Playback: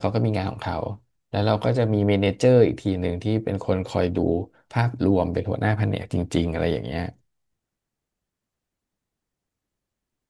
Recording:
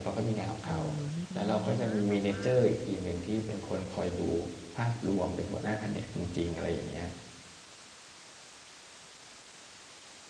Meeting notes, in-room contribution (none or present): present